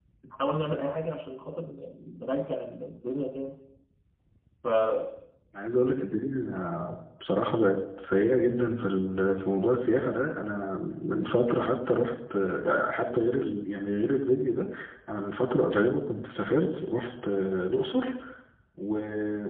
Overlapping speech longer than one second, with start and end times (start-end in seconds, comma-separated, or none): none